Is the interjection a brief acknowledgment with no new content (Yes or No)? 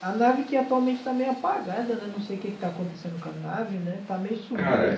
No